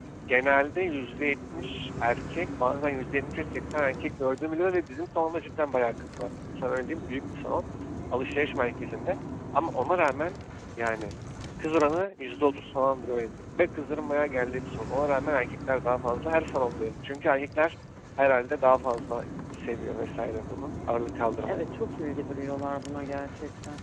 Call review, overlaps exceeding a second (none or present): none